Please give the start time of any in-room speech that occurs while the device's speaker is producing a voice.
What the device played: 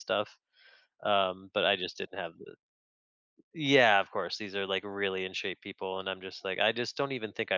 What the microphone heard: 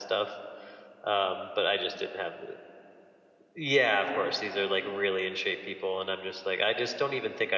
none

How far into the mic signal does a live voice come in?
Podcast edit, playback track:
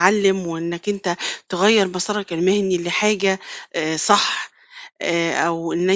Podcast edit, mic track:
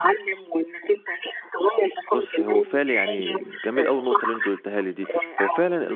2.1 s

